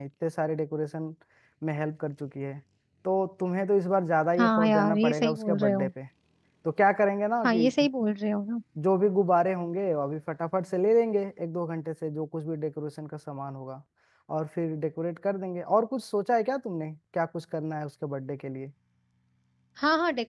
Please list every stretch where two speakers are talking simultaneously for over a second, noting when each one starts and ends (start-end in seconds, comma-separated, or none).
4.4-5.9